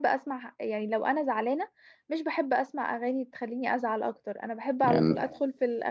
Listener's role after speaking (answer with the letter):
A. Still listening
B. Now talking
A